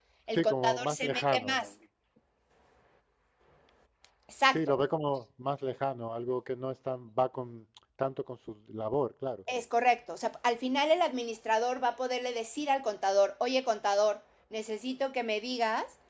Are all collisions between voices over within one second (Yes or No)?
No